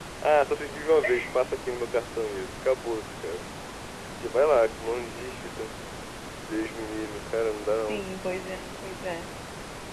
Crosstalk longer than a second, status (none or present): none